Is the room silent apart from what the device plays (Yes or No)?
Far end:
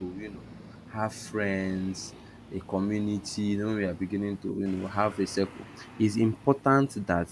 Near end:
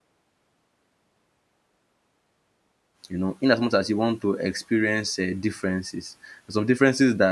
No